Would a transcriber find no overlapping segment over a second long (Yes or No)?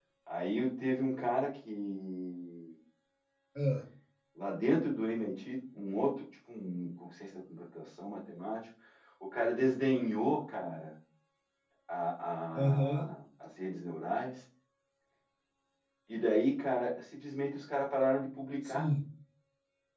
Yes